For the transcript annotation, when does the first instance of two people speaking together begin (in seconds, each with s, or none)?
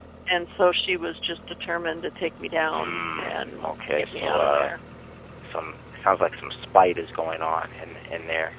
2.7 s